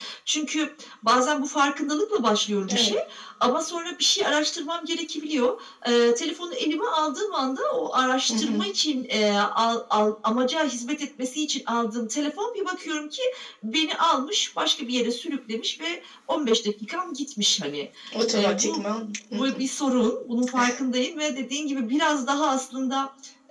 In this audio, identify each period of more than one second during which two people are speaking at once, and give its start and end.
none

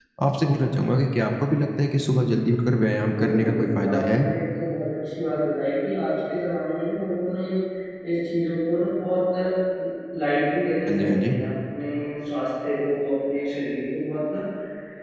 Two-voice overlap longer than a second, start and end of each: 3.0-4.2

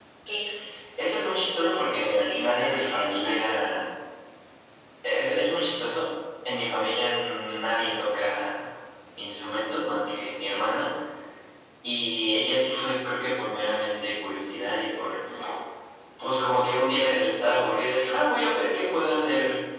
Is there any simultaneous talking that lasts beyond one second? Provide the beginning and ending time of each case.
1.6-3.3

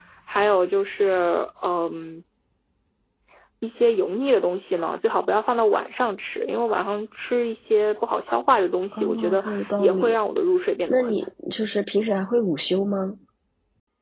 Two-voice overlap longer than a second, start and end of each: 8.9-10.2

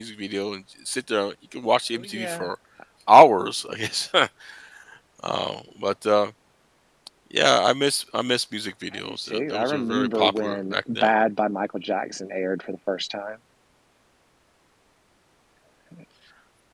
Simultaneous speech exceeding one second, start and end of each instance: 9.1-11.1

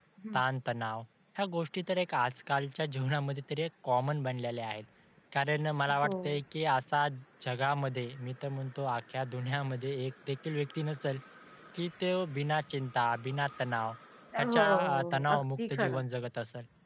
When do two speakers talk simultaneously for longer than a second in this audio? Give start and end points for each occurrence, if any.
14.4-16.0

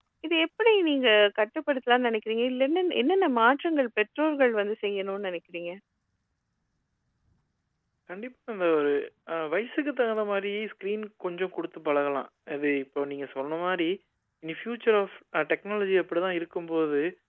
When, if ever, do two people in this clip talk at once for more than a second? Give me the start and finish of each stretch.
none

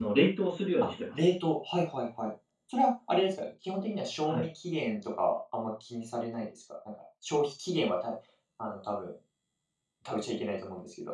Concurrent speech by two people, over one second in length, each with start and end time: none

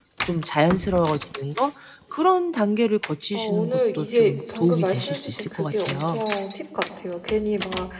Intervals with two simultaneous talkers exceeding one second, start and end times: 3.3-6.2

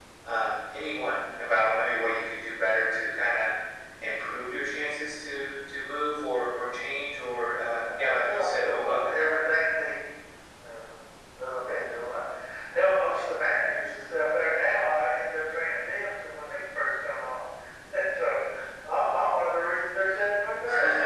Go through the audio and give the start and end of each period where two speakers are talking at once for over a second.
7.7-9.0

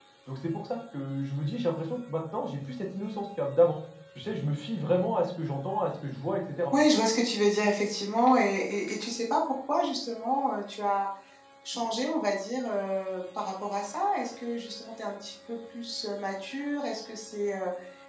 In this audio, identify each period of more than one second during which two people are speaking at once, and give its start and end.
none

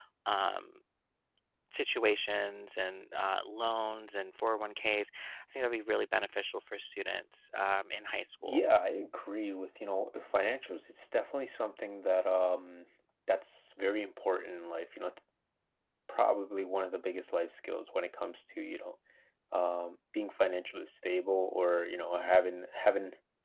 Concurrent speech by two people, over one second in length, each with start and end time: none

